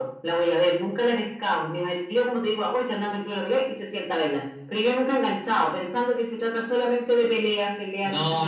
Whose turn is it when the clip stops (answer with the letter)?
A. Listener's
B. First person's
A